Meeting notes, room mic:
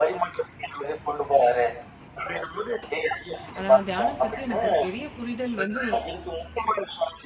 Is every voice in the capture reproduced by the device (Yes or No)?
No